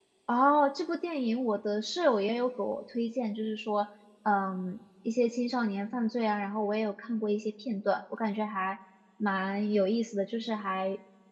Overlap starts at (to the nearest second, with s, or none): none